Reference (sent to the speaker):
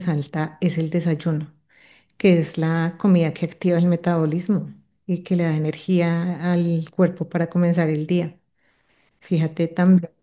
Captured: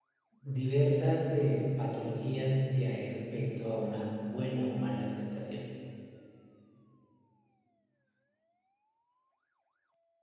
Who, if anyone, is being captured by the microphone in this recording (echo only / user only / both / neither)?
user only